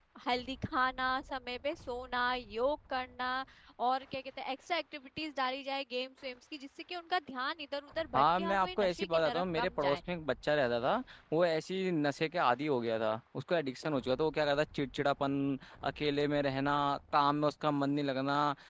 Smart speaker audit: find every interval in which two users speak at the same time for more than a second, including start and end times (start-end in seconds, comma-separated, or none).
8.1-10.0